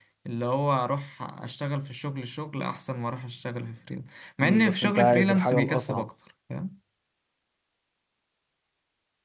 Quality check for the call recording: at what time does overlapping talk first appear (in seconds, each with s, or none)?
4.4 s